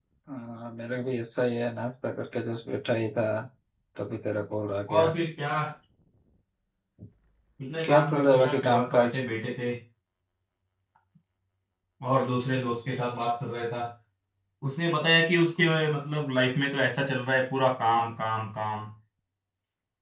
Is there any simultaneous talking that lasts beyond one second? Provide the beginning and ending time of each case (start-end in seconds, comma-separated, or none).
7.8-9.2